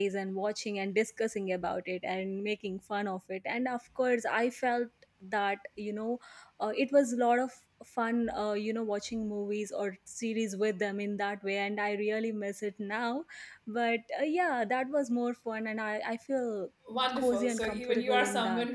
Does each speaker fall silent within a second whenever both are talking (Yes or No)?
No